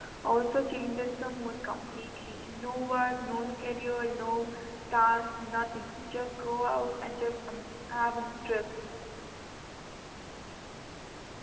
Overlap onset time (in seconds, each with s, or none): none